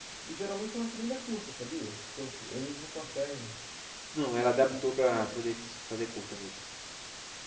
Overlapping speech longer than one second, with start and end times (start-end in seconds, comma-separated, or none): none